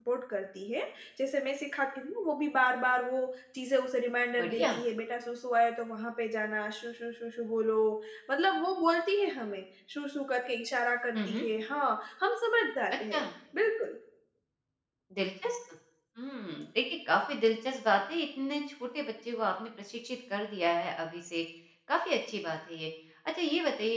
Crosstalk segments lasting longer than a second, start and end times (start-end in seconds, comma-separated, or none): none